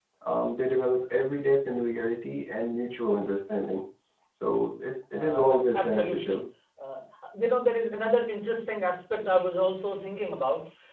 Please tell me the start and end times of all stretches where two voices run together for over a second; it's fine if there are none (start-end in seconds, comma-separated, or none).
5.1-6.4